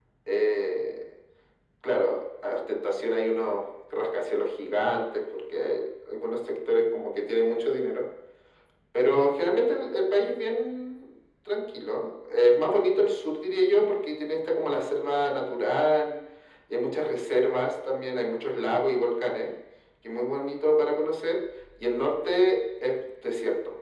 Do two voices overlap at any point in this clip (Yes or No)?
No